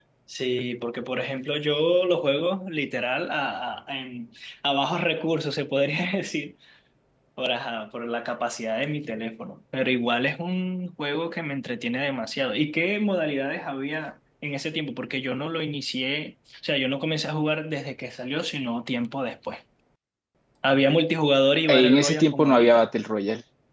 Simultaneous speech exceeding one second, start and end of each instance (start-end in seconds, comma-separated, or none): 21.7-22.9